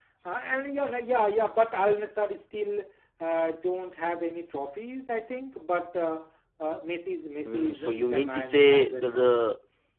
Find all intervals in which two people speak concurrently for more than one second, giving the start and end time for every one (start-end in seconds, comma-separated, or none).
7.5-9.4